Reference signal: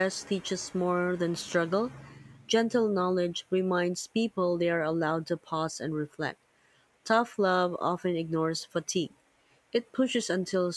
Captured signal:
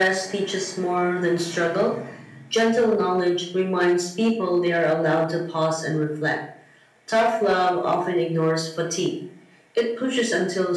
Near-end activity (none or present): none